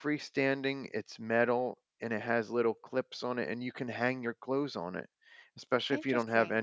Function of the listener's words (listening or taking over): listening